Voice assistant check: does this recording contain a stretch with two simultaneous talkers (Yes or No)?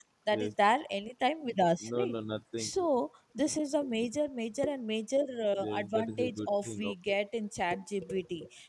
Yes